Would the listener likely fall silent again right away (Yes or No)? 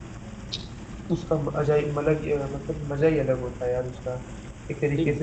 Yes